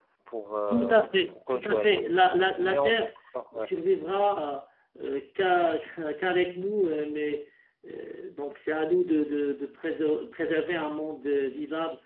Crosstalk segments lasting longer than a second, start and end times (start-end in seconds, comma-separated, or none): 0.7-2.0